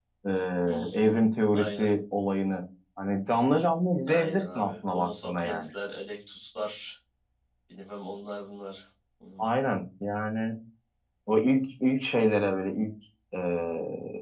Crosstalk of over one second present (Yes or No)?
Yes